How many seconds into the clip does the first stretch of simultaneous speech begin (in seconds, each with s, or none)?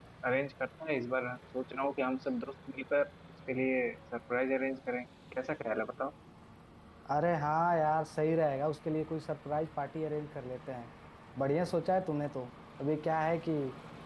none